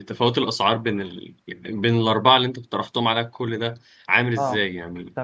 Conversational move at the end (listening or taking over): taking over